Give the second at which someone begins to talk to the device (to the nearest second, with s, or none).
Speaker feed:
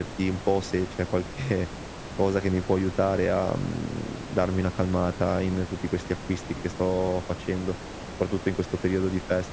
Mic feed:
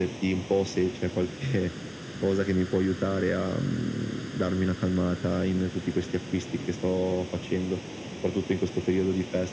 none